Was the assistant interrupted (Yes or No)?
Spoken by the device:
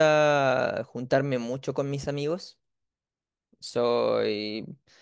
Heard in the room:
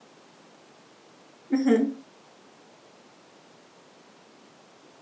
Yes